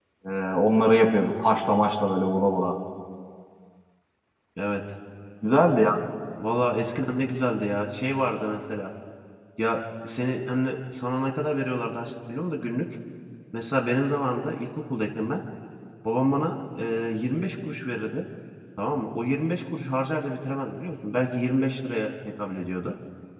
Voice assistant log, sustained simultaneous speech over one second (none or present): none